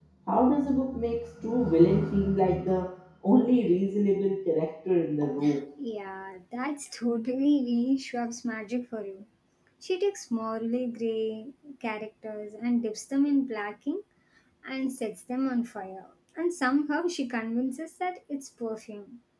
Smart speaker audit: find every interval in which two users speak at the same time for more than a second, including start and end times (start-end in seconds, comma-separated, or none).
none